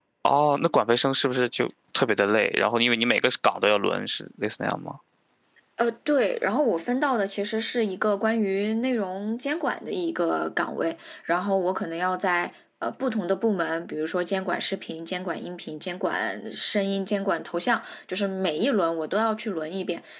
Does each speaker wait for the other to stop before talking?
Yes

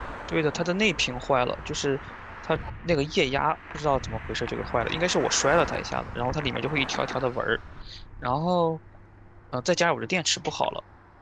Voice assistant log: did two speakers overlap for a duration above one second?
No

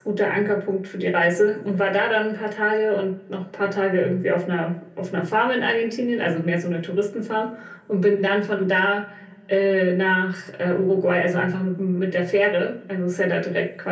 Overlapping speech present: No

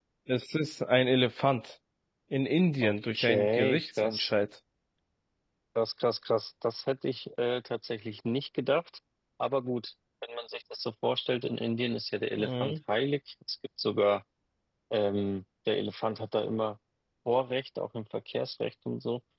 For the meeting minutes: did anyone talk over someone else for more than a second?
Yes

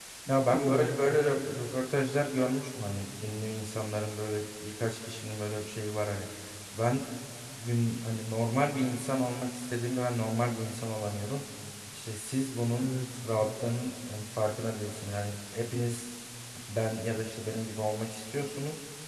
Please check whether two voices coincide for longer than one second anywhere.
Yes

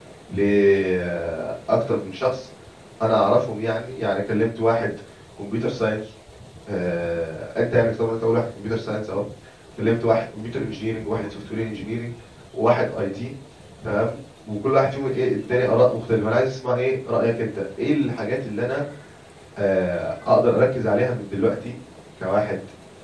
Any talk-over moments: No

